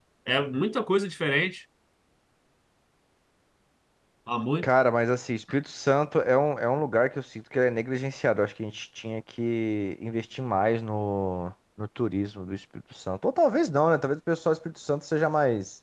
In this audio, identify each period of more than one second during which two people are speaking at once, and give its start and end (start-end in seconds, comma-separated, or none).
none